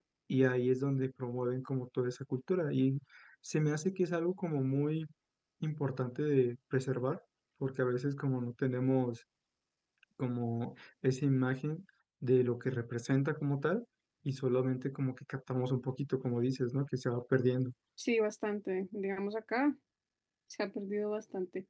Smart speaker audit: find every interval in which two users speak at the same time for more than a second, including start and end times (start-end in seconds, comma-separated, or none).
none